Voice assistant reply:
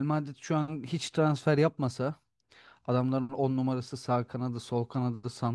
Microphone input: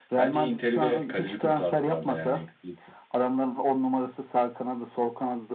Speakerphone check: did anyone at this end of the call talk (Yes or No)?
Yes